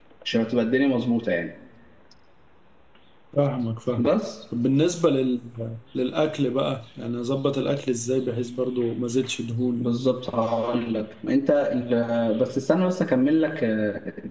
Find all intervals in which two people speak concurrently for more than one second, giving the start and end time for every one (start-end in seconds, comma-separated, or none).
none